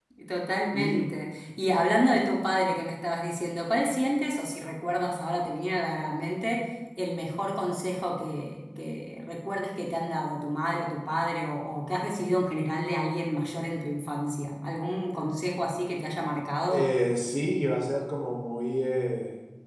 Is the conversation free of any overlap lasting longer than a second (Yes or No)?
Yes